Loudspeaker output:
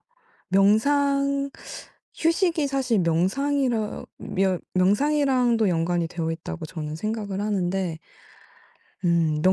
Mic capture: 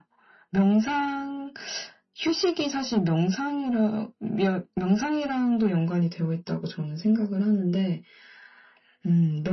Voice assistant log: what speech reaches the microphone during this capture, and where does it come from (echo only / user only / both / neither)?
echo only